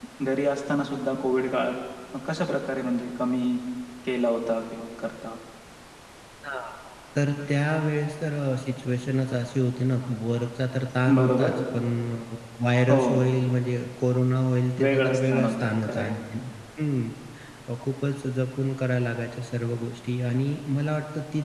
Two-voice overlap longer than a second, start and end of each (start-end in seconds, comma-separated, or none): 14.8-16.0